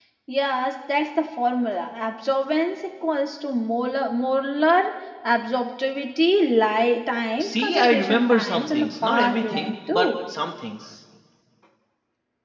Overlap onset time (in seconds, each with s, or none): 7.4 s